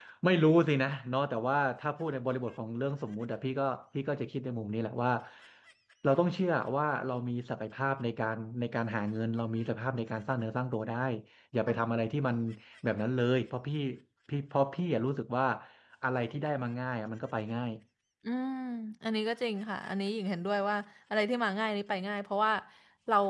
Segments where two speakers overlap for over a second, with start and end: none

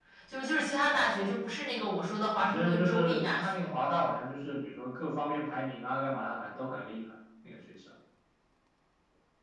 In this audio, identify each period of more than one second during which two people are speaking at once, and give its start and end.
2.4-3.7

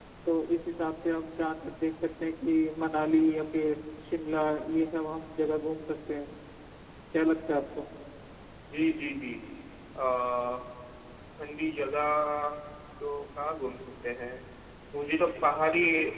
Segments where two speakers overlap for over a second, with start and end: none

